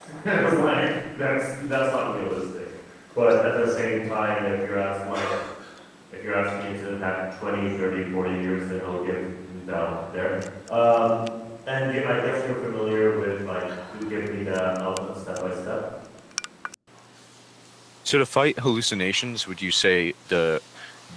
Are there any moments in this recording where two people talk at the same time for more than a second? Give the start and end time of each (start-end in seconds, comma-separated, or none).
none